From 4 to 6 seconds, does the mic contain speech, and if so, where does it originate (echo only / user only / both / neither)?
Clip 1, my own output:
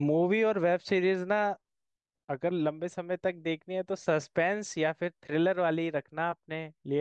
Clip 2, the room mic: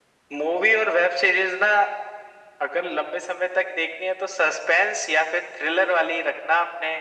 echo only